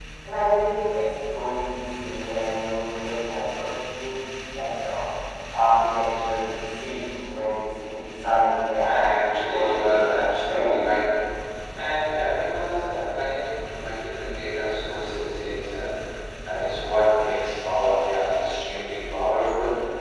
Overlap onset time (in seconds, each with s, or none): 8.8 s